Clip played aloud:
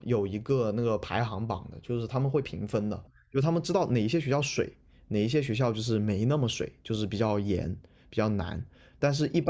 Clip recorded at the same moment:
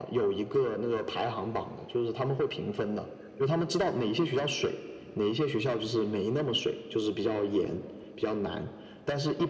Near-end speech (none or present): none